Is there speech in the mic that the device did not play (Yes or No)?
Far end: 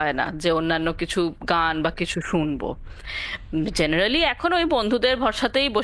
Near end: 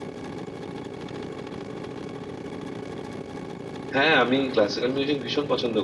Yes